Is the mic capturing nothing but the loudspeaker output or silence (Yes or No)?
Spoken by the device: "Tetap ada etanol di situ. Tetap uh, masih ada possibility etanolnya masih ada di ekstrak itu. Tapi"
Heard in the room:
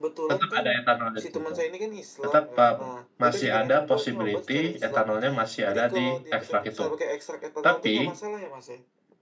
No